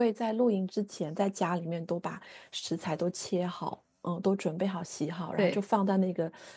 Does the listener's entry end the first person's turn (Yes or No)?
No